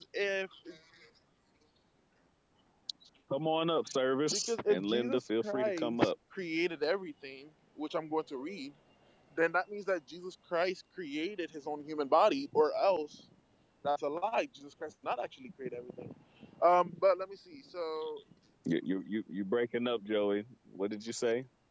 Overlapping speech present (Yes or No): Yes